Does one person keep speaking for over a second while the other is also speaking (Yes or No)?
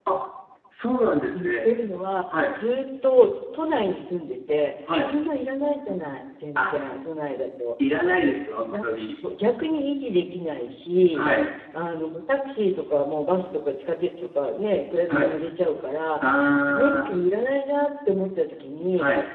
No